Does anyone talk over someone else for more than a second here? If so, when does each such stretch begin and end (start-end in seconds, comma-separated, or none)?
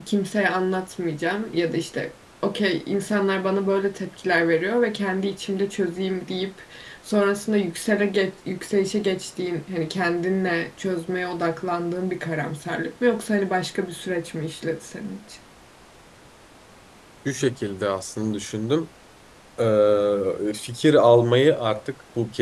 none